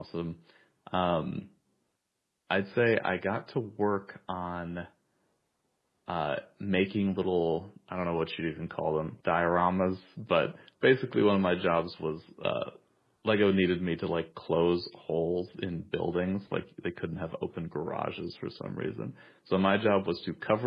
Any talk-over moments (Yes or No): No